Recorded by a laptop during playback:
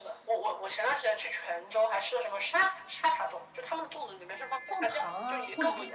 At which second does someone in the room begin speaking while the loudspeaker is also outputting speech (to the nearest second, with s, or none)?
5 s